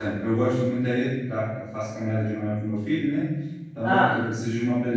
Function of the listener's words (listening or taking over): listening